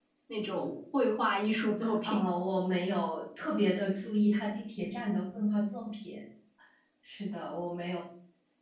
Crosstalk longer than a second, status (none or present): none